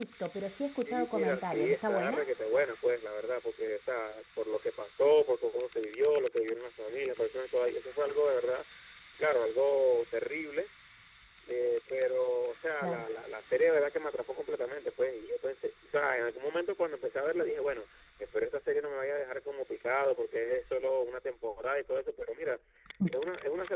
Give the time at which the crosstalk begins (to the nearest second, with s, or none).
1 s